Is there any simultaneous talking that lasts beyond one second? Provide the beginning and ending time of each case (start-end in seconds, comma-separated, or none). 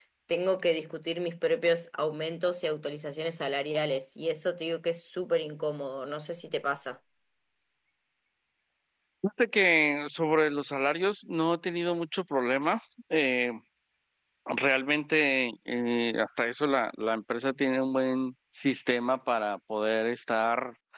none